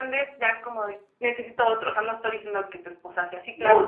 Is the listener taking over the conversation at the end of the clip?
Yes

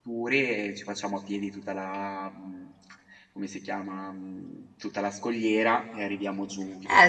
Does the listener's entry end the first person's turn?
Yes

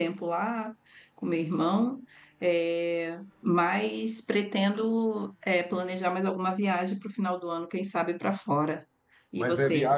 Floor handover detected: Yes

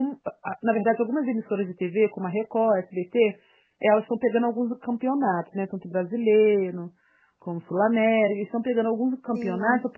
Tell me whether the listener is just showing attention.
Yes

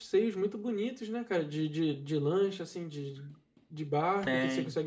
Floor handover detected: No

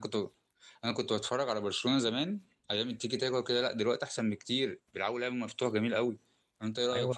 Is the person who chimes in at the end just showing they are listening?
No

